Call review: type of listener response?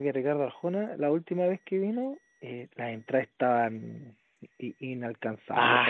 taking over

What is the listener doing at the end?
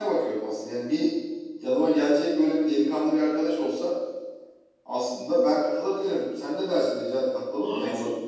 taking over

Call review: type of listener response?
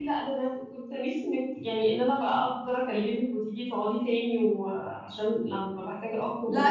taking over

